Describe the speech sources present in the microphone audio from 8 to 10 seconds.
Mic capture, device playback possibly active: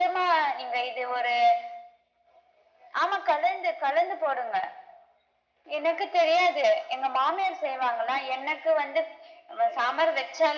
echo only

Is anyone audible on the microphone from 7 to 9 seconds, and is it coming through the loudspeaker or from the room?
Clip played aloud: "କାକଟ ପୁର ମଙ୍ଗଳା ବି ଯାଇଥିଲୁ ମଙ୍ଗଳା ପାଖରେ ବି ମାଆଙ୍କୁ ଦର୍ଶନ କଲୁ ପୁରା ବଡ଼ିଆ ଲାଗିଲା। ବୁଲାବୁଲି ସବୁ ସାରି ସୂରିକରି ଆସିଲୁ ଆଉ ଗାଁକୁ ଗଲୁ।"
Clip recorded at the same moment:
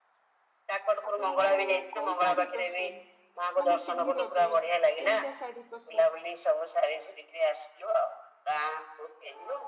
echo only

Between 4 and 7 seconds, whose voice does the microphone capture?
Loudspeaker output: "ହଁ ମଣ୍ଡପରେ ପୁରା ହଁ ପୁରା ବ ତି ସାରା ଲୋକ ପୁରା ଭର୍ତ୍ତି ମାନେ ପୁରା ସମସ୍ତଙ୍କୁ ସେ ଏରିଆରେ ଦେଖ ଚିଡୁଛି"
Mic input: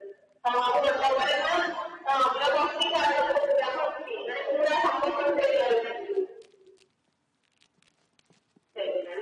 echo only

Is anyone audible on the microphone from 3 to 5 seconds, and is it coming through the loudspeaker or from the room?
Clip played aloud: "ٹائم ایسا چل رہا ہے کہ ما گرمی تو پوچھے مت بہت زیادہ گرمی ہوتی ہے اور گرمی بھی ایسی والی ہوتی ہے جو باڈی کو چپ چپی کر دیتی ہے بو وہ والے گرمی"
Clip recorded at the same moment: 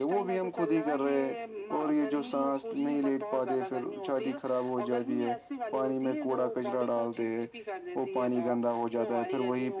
both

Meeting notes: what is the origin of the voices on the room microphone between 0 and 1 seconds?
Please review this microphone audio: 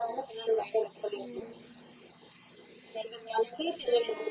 echo only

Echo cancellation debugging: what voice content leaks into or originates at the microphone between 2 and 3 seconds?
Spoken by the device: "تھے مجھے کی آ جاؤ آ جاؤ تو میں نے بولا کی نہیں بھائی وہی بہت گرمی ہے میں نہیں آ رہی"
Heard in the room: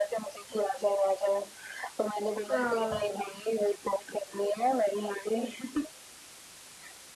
both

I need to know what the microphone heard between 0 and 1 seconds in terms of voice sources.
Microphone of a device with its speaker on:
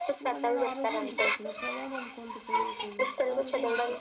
both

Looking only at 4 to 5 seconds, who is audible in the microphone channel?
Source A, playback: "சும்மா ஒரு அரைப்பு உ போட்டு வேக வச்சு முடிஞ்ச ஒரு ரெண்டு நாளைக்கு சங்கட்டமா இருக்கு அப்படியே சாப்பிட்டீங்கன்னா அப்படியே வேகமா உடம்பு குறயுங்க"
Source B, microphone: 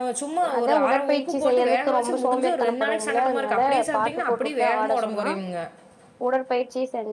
both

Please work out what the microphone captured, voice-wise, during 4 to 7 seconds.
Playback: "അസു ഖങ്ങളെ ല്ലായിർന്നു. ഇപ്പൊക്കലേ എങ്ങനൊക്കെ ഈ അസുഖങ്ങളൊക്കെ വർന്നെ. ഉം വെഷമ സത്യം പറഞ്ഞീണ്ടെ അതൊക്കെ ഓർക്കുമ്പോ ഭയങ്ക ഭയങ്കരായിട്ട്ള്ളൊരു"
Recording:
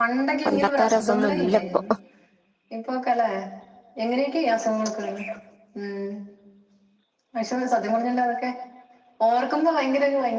echo only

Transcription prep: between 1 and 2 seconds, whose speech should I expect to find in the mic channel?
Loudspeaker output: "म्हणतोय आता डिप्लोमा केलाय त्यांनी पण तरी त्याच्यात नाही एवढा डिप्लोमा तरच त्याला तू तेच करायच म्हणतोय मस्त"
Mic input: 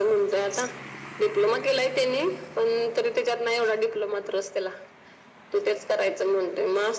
echo only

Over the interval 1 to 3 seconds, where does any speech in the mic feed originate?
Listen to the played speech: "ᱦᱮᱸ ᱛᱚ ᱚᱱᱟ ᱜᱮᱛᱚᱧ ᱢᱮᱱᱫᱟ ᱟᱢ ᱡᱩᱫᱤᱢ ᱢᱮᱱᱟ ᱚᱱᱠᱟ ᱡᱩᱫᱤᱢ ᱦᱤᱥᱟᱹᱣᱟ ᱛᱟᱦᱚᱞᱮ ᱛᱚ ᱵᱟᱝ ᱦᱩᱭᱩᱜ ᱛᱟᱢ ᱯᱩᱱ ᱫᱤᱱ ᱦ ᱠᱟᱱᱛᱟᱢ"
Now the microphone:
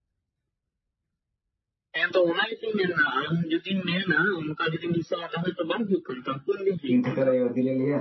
echo only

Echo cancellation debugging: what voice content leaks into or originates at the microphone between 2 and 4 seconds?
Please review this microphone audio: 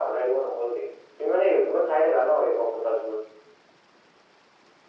echo only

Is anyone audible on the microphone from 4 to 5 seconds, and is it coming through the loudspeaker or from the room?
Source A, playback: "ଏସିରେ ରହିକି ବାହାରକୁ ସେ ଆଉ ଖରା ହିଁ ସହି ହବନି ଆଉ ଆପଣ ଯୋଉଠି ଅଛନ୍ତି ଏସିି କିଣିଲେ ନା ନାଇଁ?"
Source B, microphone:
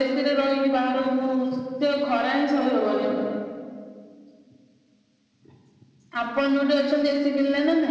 neither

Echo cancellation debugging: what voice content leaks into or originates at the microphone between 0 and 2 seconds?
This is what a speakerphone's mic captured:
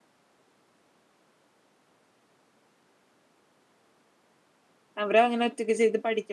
neither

